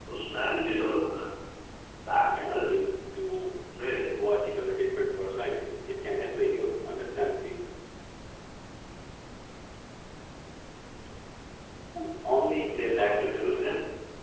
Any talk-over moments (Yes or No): Yes